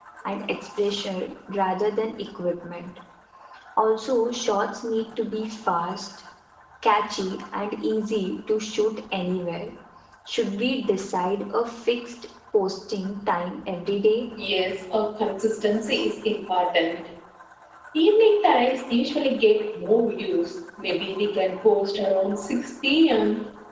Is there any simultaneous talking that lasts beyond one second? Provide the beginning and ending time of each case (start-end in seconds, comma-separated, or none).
none